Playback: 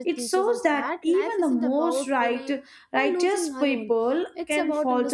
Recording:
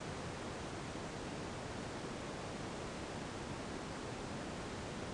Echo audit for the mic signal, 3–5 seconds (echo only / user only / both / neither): neither